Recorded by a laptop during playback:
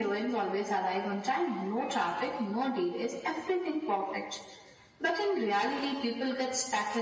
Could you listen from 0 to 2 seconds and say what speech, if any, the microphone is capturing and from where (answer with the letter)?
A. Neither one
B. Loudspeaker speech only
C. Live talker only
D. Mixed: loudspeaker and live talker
B